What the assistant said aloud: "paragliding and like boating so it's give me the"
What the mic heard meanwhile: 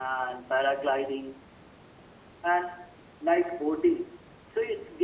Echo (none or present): present